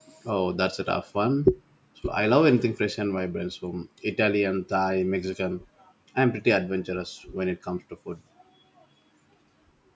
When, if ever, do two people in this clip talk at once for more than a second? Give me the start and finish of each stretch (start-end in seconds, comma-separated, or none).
none